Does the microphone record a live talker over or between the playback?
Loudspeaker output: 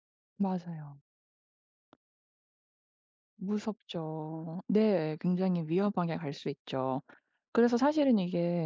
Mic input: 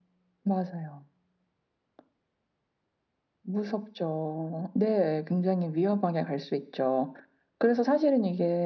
No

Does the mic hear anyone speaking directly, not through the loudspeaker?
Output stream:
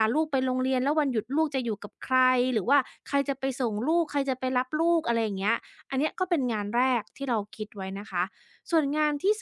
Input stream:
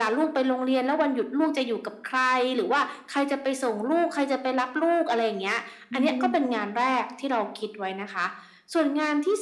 Yes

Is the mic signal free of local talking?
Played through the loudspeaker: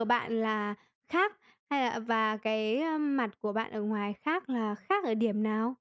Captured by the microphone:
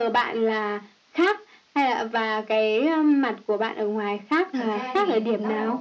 No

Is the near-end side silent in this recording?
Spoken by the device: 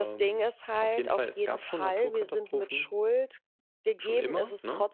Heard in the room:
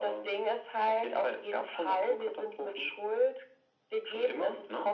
Yes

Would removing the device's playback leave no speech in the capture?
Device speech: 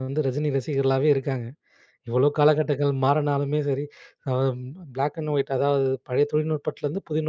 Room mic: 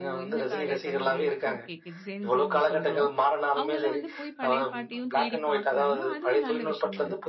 No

